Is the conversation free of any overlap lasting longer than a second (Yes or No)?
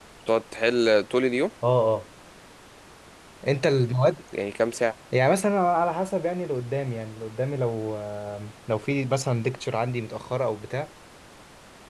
Yes